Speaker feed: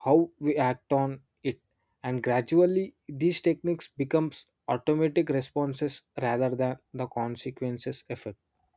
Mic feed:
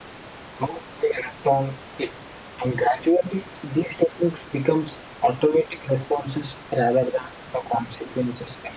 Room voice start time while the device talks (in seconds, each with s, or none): none